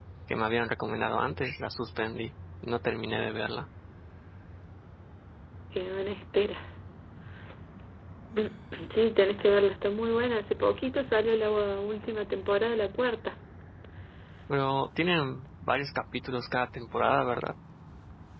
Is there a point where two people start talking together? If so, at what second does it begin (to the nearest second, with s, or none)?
none